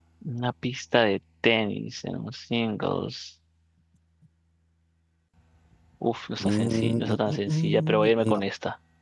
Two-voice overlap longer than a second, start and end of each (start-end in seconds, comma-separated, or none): 6.4-8.4